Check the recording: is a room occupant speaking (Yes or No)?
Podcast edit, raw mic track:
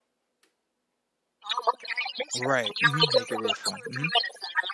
Yes